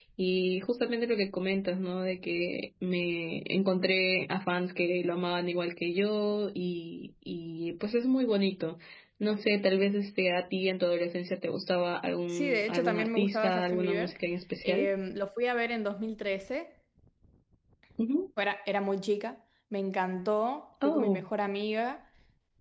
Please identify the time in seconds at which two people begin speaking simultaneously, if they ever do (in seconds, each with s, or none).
12.3 s